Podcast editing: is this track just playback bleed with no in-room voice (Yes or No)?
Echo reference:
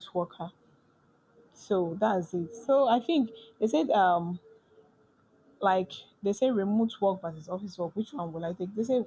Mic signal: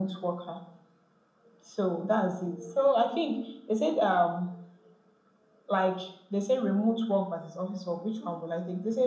Yes